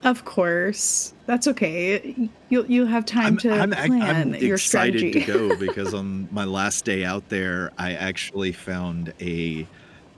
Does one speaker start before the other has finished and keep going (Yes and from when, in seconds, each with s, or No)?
Yes, from 3.2 s